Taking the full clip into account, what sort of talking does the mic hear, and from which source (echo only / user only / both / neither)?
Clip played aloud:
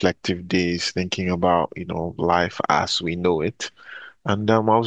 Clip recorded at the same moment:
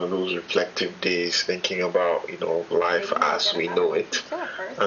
both